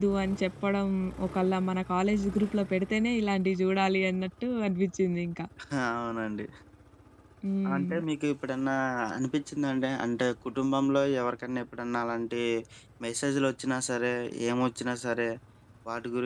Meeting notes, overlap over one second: none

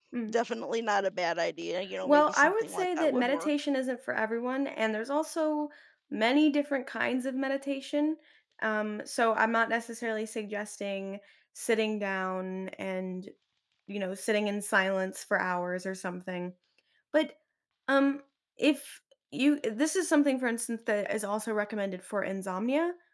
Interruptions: present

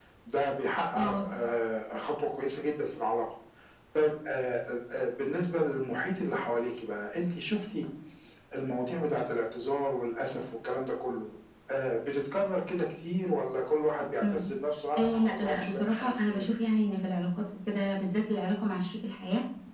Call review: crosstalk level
present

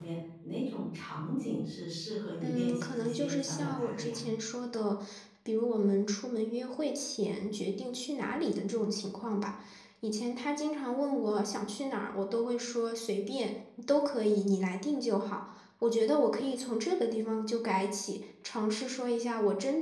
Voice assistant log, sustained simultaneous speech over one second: present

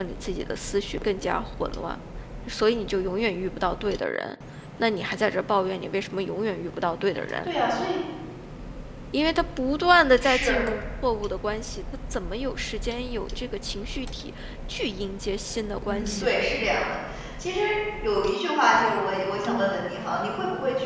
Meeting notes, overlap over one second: none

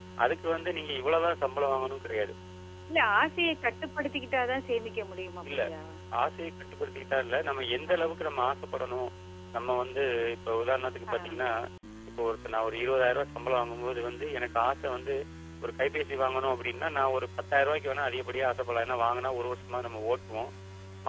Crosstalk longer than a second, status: none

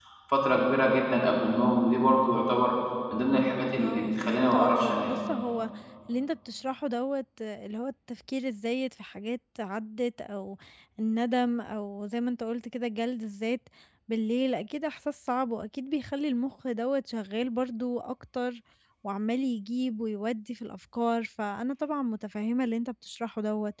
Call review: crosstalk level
present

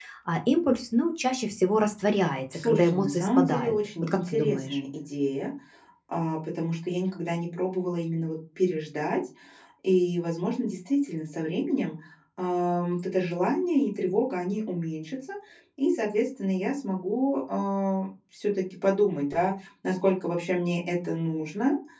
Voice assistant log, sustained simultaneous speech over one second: present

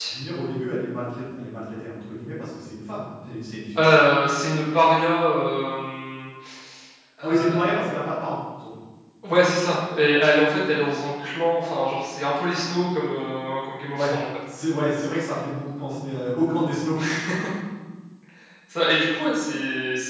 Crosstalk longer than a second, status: none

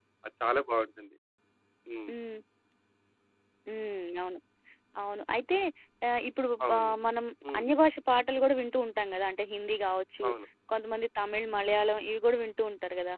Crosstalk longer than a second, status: none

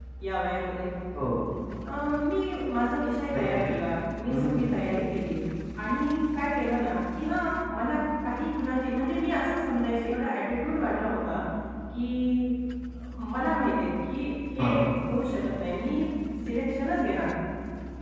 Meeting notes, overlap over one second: none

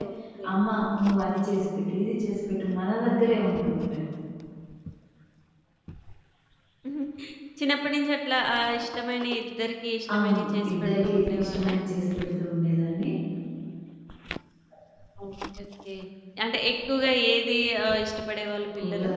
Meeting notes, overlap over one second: present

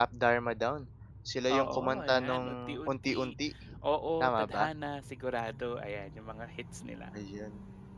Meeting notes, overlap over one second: present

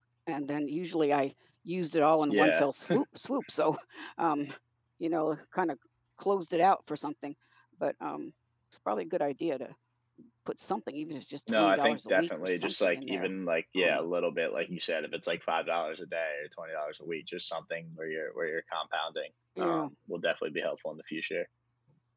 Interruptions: present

